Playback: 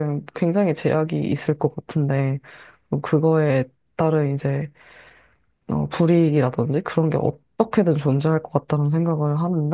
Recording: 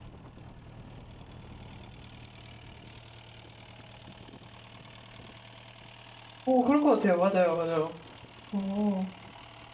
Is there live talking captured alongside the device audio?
Yes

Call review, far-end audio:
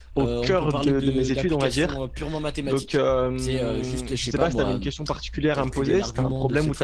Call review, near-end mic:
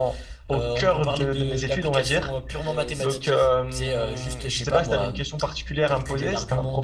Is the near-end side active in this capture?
Yes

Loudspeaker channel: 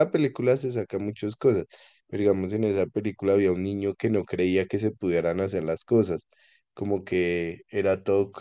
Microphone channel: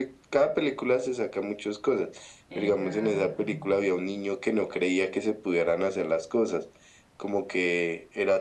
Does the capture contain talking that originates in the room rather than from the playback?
Yes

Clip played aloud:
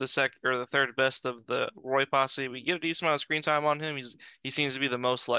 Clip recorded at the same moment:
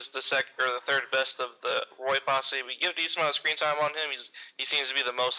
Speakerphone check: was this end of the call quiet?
Yes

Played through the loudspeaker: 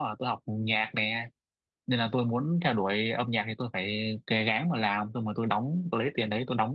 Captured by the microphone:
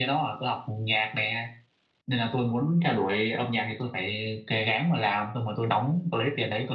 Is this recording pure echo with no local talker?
Yes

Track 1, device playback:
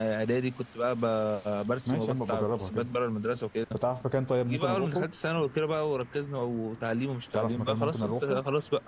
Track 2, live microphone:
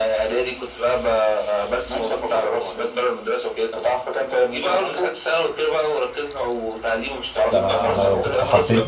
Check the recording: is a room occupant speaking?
Yes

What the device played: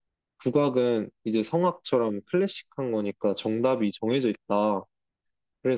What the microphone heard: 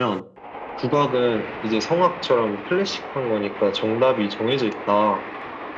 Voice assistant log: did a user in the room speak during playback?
No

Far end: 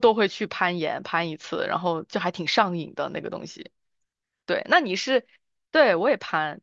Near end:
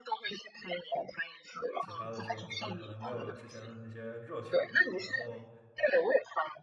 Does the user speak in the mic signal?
Yes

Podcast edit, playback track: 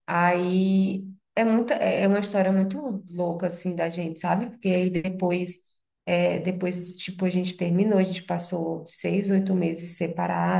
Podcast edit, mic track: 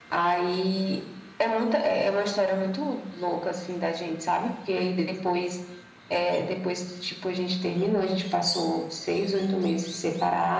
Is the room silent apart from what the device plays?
Yes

